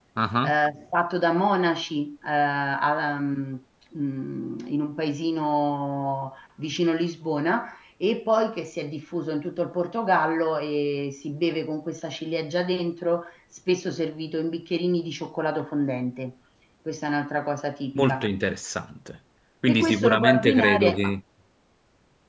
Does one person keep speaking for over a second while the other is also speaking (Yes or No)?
Yes